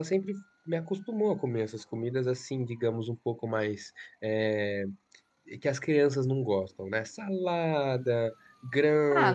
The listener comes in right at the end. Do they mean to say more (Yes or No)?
Yes